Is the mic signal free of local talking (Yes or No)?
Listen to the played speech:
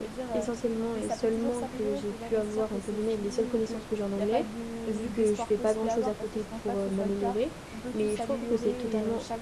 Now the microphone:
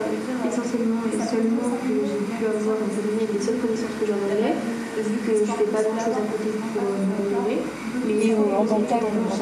No